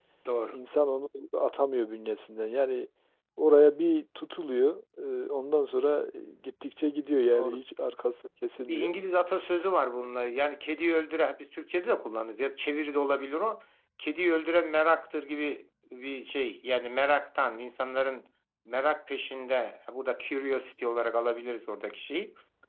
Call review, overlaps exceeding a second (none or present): none